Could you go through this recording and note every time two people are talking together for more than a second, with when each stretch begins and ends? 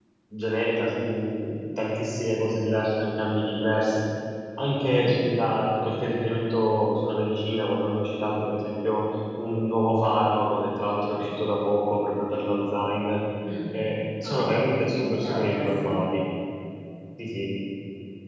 14.2-16.0

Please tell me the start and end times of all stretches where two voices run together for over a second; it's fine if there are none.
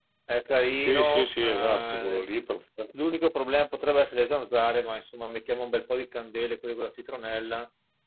0.8-2.2

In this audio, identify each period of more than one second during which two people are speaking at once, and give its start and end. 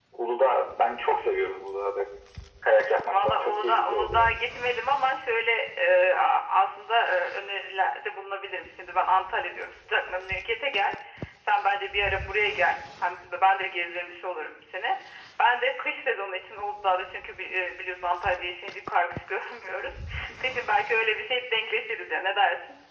3.1-4.3

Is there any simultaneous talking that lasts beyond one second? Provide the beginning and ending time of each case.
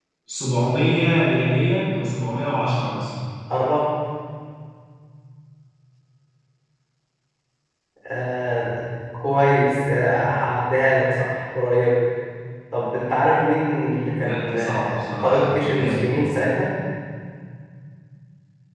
14.2-16.1

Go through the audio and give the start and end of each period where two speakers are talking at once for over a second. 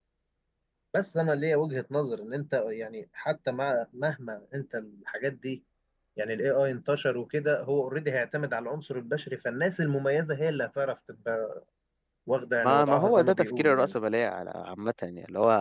12.6-13.9

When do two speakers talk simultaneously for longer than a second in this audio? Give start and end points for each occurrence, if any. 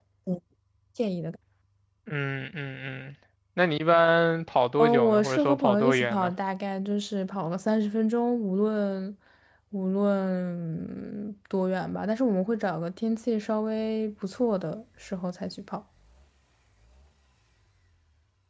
4.8-6.3

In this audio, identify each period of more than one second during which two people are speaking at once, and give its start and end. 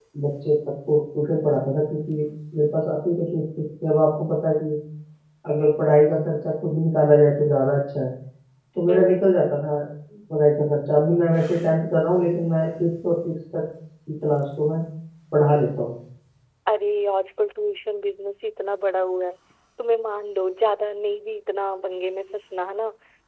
none

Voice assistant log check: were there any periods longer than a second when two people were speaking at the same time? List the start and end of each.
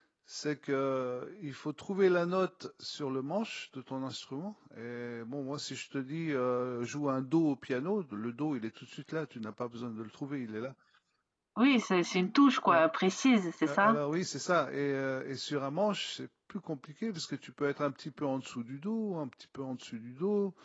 none

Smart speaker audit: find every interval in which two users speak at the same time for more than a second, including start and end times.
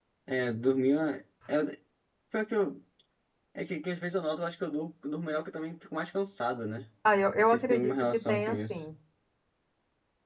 7.4-8.8

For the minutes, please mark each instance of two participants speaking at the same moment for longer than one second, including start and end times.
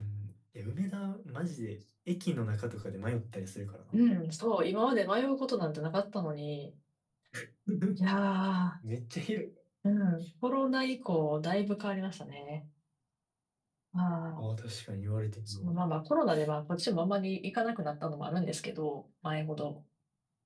none

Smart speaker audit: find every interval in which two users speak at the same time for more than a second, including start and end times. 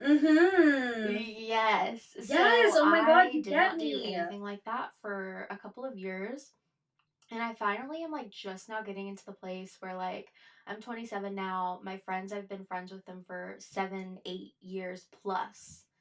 2.2-4.2

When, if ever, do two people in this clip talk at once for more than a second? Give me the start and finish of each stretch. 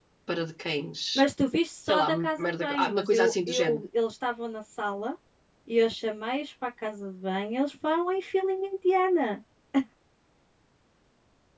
1.9-3.8

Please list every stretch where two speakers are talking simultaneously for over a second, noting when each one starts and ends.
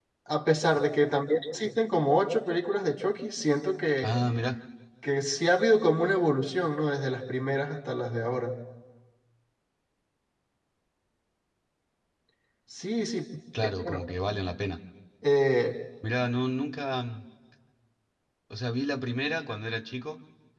none

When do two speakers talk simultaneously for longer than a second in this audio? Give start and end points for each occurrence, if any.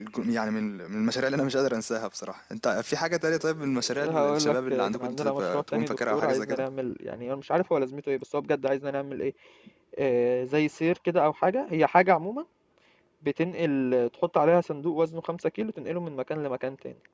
4.0-6.6

